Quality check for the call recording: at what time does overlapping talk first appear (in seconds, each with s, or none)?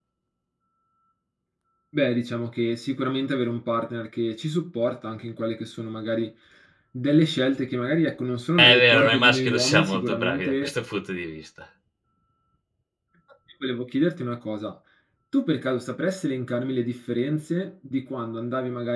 8.6 s